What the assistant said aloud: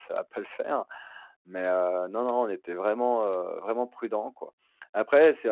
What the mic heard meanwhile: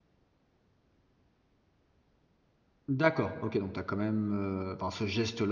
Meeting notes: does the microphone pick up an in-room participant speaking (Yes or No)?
Yes